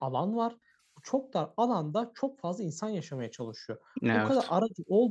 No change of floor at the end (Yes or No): Yes